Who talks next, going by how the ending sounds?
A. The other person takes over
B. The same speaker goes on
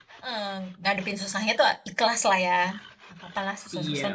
A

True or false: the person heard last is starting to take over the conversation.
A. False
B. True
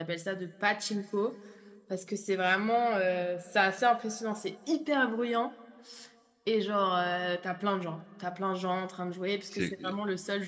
A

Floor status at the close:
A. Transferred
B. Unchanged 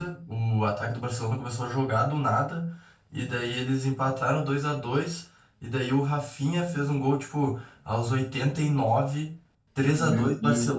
B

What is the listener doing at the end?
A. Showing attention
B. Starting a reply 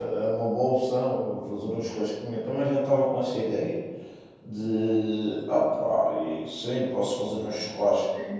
B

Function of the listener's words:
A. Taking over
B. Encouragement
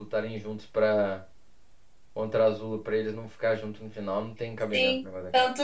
A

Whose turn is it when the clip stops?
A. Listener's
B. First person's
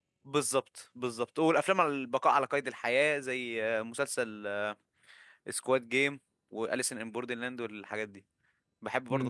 A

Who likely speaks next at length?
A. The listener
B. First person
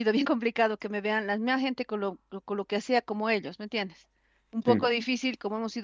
B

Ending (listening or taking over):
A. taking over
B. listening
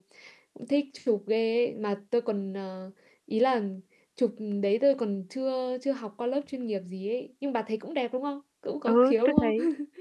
A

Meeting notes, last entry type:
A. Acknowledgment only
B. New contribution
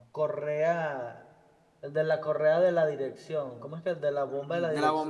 B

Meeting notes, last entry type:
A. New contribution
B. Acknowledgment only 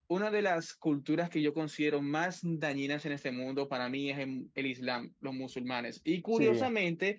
B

